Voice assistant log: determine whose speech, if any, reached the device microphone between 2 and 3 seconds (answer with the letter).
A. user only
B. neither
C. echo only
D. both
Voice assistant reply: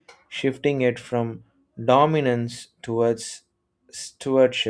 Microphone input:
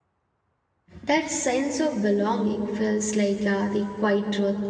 A